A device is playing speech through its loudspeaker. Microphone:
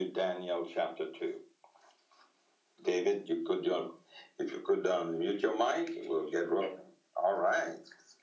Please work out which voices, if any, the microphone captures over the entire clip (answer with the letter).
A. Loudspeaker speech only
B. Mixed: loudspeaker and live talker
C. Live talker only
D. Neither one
A